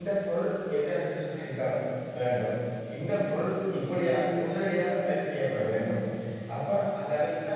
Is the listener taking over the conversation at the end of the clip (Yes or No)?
No